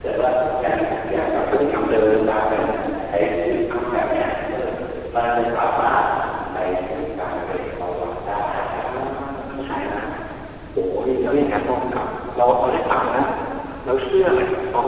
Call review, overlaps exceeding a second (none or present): present